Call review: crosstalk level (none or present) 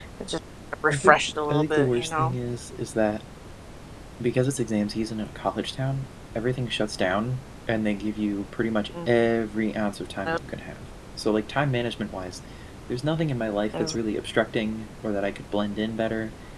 present